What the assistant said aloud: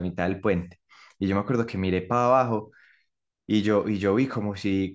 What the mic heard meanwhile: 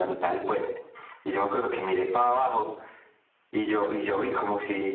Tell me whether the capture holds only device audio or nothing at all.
Yes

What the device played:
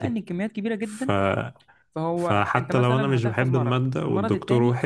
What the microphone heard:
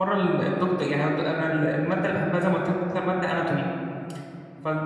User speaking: Yes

